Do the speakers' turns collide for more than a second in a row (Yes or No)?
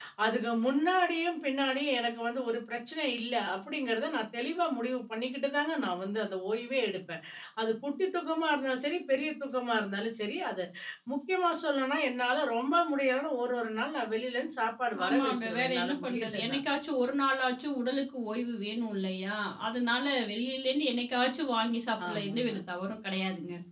Yes